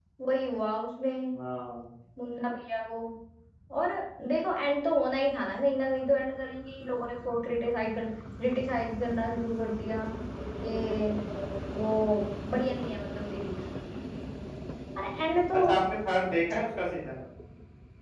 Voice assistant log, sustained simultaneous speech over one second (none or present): none